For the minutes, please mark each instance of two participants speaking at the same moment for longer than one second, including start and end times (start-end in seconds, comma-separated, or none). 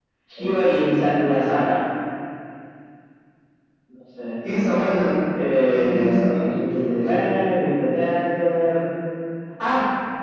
5.7-7.3